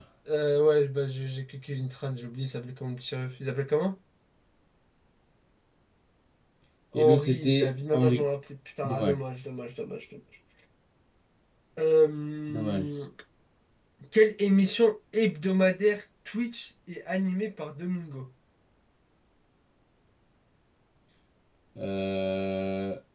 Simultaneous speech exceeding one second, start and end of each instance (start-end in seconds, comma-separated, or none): 6.9-8.2